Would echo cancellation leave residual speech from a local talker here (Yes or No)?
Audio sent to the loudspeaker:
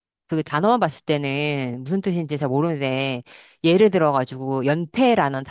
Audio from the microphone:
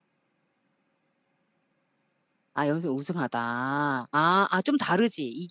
Yes